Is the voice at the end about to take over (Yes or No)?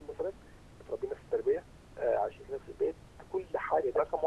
Yes